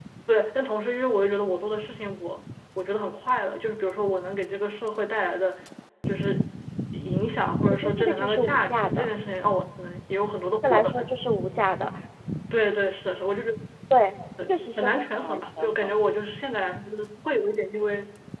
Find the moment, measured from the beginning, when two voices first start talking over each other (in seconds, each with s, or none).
7.7 s